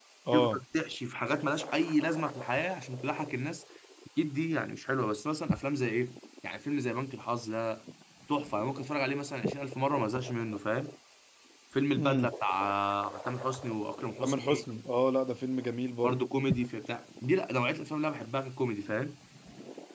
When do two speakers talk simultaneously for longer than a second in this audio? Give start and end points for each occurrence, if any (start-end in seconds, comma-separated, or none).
none